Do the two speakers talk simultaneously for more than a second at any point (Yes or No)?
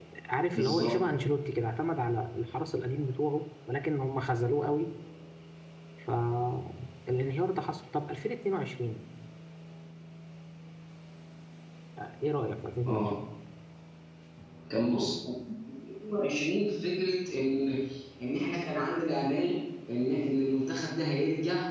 No